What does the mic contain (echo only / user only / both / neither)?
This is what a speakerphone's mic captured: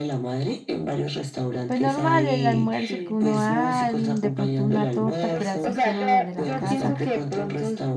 both